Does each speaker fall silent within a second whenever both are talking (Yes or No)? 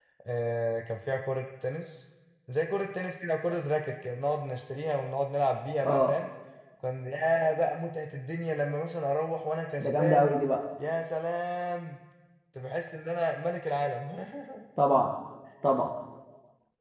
Yes